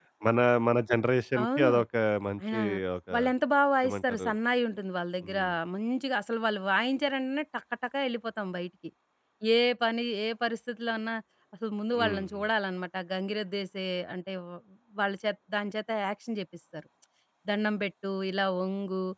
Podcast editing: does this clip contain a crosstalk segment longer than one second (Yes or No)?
No